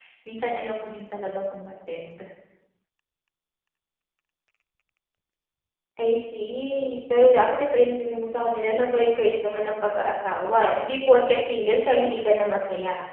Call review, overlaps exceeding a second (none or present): none